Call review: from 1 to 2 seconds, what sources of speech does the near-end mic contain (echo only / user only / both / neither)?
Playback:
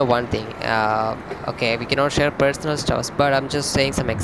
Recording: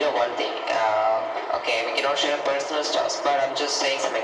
echo only